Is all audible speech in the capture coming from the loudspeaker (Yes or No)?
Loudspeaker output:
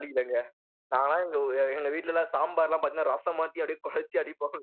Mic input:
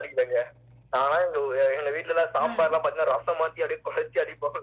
No